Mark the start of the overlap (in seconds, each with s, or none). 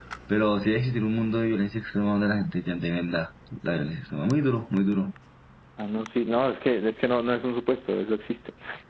none